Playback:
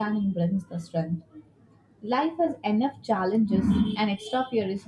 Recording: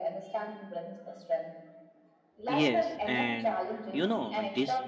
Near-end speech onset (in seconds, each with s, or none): 2.5 s